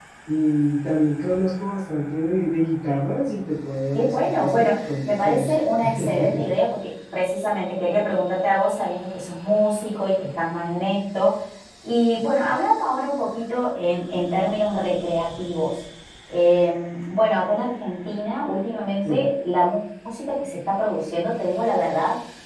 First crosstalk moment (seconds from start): 3.9 s

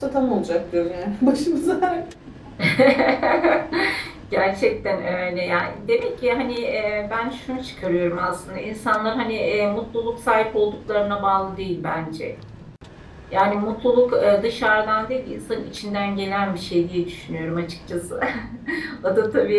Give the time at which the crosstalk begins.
none

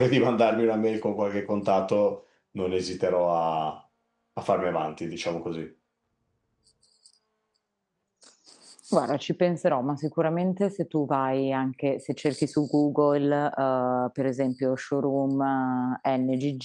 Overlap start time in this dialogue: none

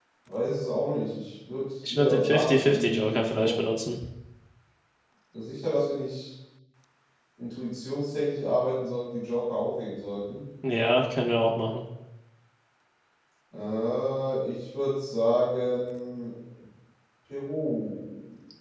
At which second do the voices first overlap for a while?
1.8 s

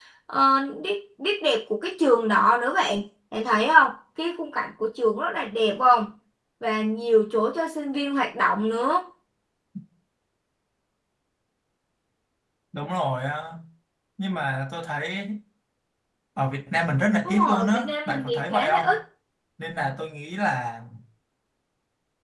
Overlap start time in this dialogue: 17.2 s

